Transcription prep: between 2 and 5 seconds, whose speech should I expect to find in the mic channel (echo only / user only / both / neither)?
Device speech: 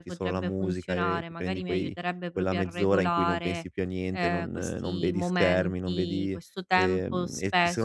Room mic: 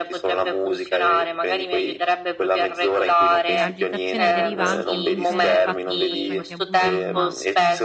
both